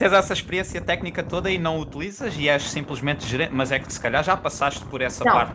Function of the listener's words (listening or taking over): taking over